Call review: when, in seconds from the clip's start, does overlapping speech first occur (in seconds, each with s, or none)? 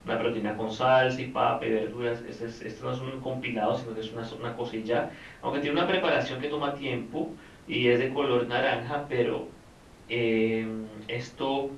none